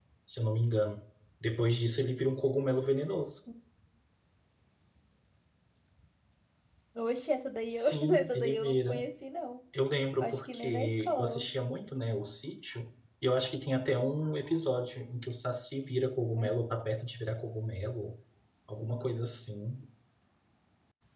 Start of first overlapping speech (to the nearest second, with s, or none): 8 s